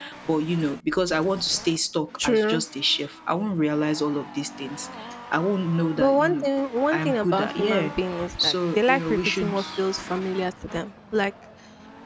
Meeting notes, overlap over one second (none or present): present